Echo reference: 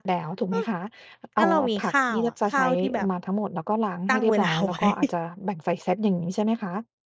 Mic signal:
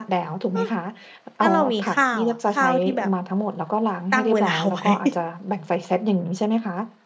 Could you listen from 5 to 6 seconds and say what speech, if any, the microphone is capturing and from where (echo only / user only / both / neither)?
echo only